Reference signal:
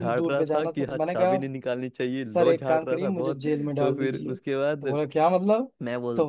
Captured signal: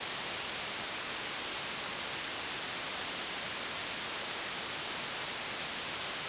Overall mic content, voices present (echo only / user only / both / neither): neither